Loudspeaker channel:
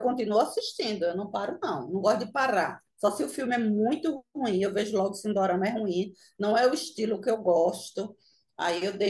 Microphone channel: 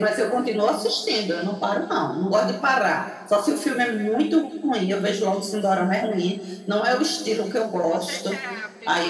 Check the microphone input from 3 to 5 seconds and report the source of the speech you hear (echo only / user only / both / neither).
echo only